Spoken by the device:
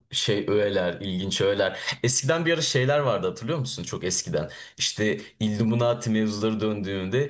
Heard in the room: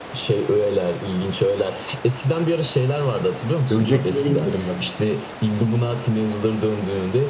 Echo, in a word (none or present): present